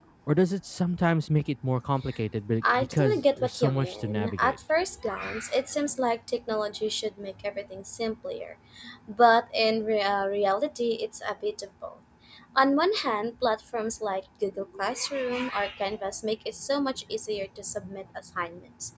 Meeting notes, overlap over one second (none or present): present